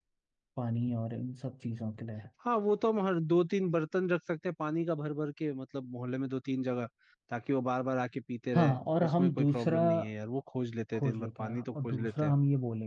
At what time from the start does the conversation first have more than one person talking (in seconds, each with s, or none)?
8.6 s